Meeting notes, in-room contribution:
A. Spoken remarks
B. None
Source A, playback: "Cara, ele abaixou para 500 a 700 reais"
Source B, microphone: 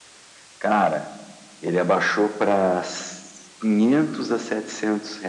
B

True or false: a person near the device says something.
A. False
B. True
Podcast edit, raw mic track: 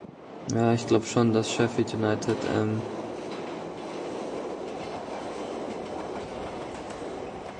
B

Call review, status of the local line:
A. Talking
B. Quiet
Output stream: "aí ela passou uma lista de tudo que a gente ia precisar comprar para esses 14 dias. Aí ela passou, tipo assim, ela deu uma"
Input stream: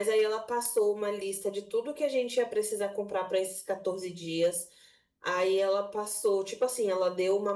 B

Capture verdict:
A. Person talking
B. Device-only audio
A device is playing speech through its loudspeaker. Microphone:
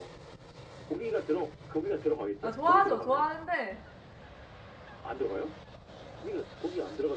A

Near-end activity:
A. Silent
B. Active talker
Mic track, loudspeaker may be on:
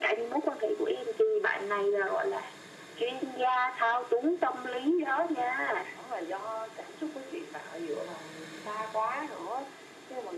A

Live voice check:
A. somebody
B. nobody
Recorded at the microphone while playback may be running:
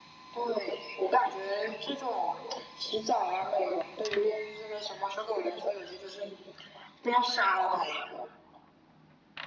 B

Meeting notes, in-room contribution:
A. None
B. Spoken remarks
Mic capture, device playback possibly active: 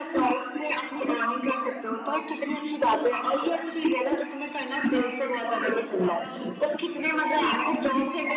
B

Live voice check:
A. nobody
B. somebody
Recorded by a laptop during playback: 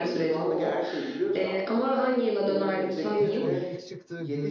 B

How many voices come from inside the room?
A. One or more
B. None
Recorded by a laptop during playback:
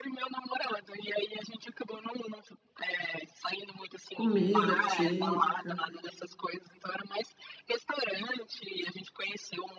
A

